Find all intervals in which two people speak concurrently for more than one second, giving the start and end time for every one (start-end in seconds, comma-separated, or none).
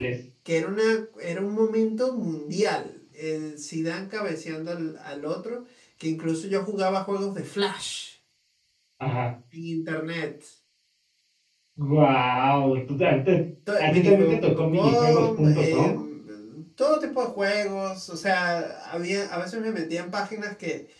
13.8-15.9